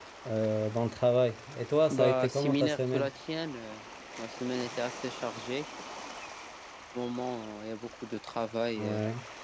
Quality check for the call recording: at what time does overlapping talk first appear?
1.9 s

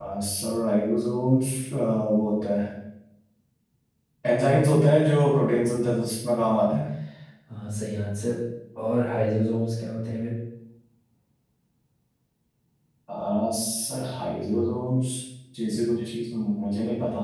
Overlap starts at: none

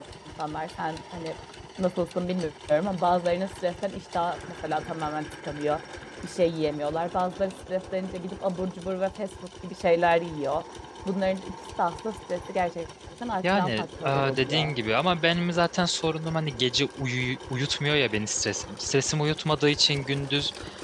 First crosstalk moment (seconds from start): 13.4 s

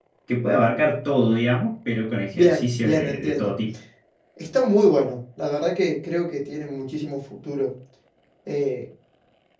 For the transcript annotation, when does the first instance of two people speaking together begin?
2.3 s

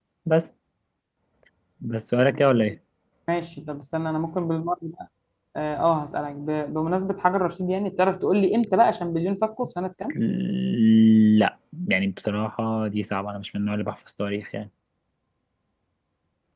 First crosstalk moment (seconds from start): none

